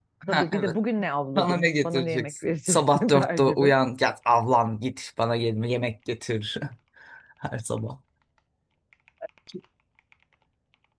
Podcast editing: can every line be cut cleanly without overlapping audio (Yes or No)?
No